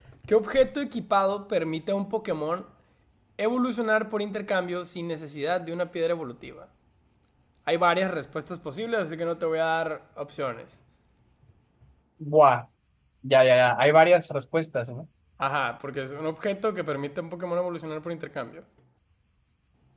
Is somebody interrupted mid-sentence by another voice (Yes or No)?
No